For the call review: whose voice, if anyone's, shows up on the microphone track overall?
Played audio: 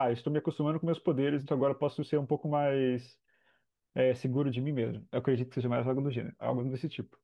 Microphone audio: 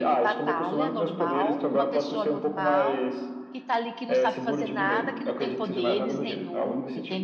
both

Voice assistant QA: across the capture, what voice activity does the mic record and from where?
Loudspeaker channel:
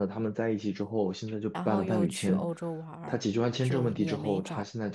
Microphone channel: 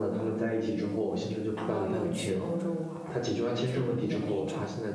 echo only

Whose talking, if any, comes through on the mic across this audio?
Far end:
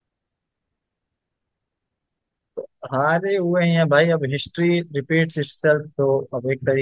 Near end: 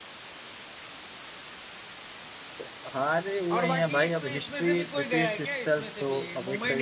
both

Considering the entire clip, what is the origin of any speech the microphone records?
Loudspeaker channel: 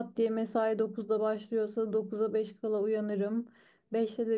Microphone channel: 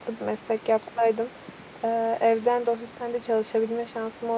user only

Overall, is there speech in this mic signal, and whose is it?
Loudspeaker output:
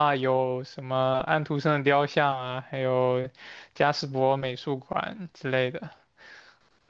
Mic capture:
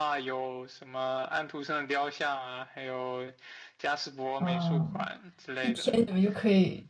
both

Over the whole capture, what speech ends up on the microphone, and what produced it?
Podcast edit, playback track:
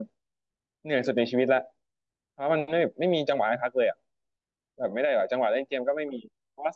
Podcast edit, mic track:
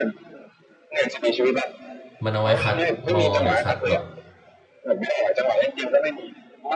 both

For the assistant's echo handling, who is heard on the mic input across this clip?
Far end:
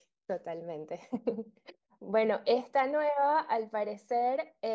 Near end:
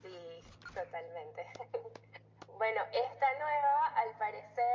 echo only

